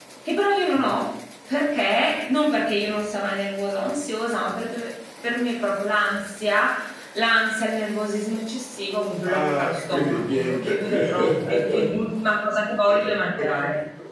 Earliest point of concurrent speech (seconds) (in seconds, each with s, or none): 9.2 s